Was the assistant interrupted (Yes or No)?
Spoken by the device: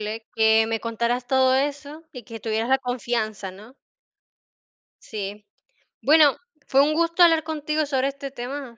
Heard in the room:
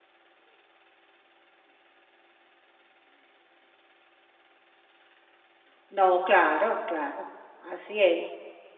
Yes